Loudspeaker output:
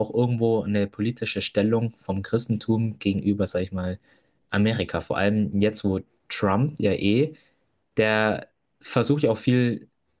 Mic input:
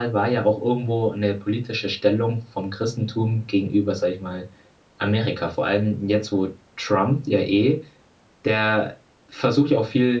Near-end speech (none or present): none